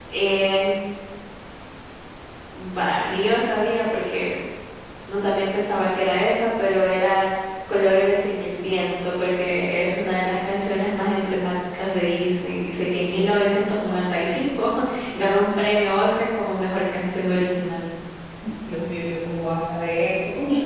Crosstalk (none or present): none